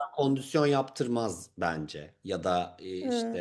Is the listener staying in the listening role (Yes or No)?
Yes